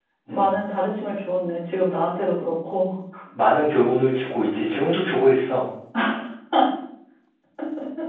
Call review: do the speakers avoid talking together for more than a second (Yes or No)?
Yes